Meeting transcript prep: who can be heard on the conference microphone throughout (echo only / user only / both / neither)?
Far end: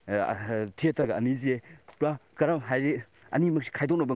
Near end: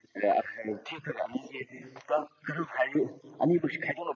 echo only